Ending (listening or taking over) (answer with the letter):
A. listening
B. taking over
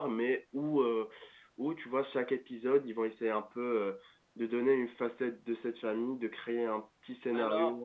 B